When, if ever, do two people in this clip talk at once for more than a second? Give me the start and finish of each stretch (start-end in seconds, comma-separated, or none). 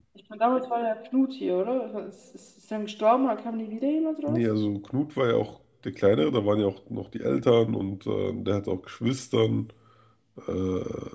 none